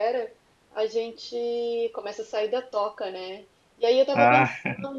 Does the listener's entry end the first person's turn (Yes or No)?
No